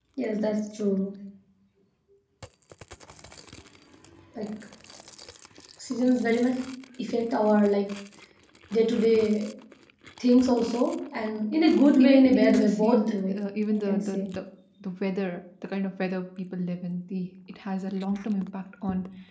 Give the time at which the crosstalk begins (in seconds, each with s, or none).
12.0 s